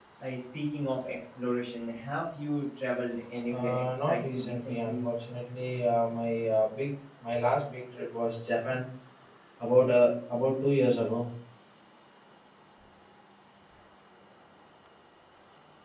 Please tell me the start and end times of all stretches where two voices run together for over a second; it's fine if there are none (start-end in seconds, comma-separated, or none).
3.5-5.1